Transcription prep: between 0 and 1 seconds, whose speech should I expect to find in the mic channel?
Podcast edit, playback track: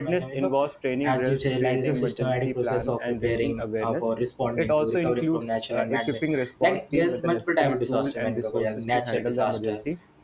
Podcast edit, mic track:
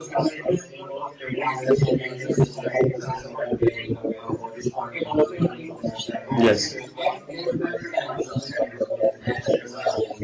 echo only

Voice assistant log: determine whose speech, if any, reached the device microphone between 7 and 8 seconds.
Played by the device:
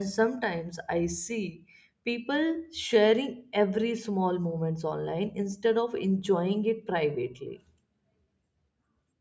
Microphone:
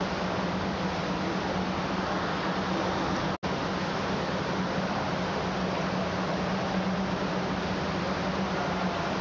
neither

